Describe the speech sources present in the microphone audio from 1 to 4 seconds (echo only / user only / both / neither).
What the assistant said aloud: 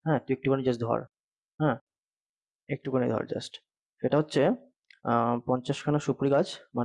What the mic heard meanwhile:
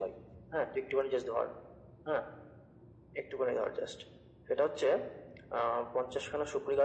echo only